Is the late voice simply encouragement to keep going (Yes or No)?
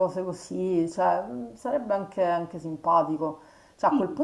Yes